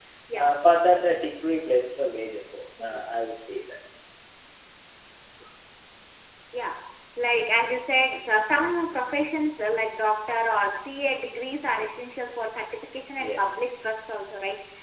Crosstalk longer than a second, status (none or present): none